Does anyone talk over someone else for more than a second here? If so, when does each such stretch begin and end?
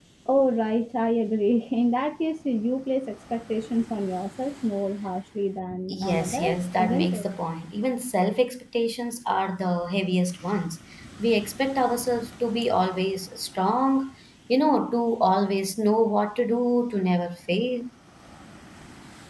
5.9-7.2

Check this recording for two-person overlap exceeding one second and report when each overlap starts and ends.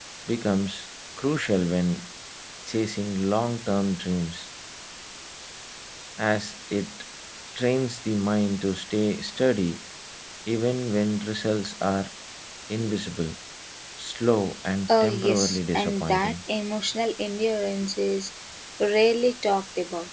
14.9-16.4

